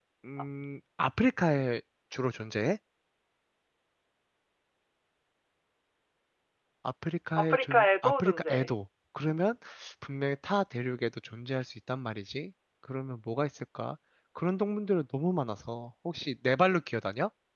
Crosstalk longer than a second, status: present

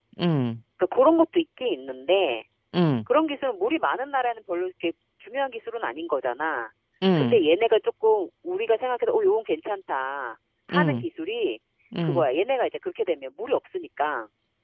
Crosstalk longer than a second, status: none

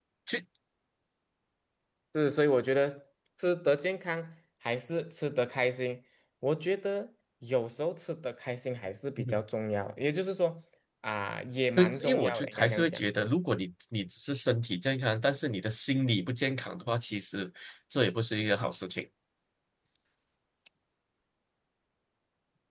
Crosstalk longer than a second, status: present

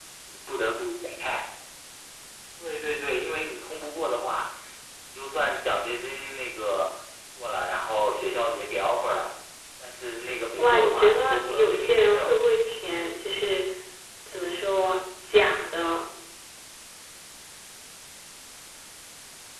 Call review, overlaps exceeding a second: present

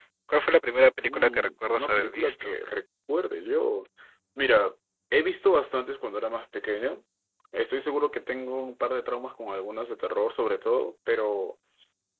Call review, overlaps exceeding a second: present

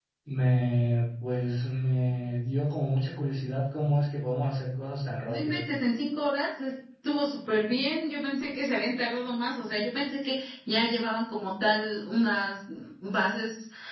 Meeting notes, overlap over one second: none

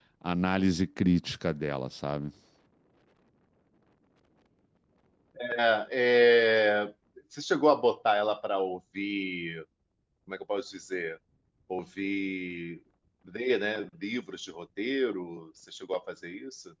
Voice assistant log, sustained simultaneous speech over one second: none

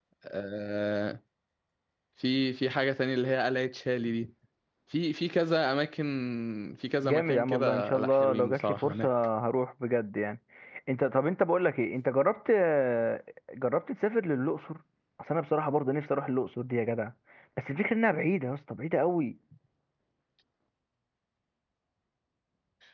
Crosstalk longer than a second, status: present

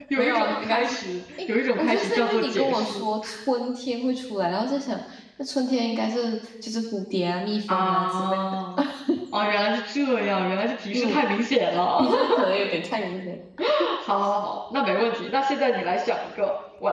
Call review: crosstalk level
present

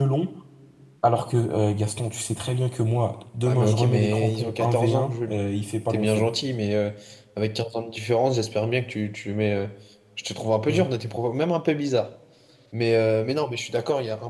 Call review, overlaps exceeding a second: present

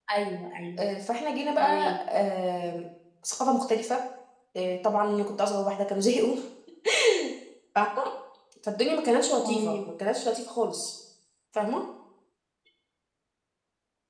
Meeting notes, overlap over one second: none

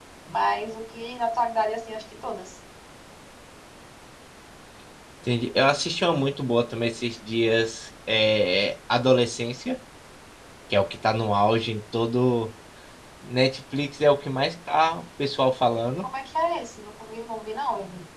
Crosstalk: none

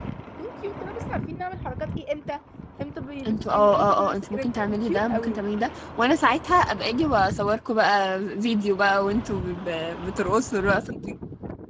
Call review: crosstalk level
present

